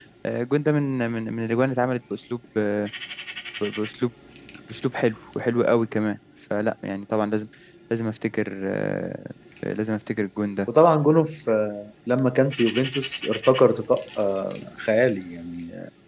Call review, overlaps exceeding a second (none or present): none